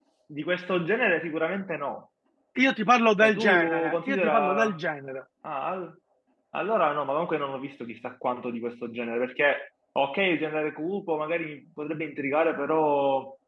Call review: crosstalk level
present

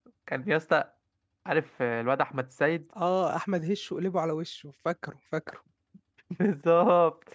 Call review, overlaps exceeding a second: none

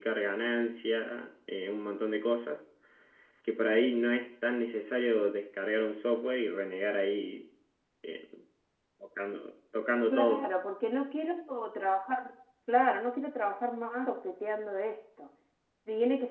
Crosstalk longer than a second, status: none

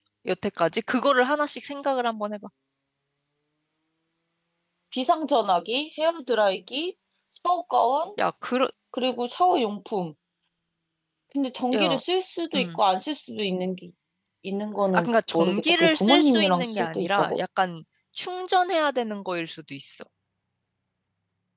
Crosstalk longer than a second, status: present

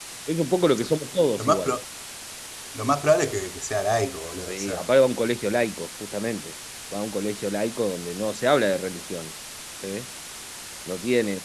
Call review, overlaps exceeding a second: none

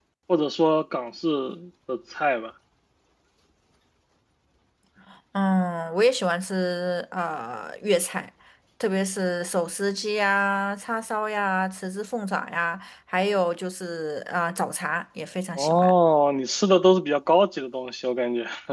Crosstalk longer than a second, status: none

